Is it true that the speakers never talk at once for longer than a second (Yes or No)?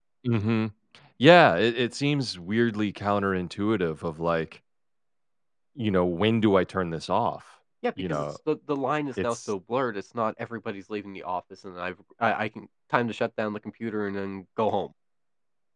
Yes